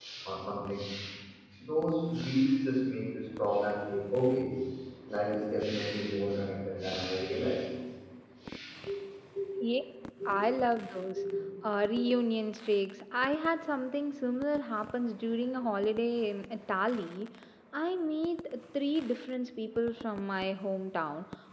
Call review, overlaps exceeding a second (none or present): none